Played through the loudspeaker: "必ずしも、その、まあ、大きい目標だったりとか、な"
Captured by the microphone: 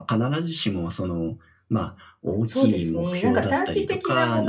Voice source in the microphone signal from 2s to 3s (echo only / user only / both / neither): both